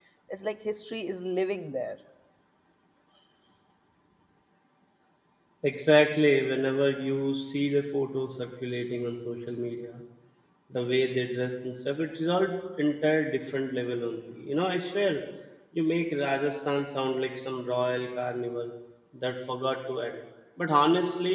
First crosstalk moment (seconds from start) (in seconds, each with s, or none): none